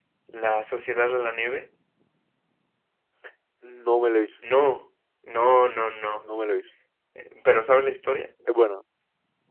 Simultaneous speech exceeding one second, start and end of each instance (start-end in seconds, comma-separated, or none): none